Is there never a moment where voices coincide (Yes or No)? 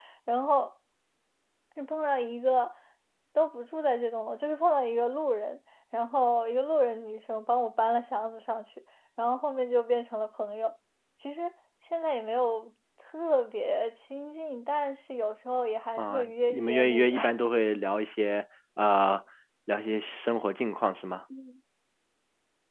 No